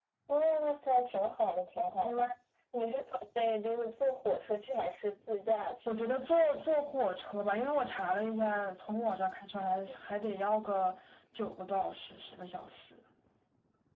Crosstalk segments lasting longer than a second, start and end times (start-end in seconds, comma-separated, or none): none